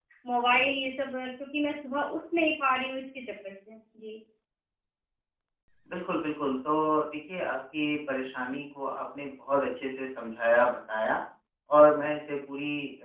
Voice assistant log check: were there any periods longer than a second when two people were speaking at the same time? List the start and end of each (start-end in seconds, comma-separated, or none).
none